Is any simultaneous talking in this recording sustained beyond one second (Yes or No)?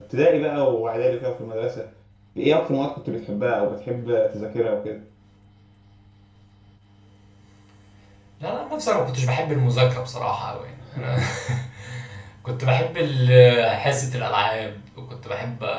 No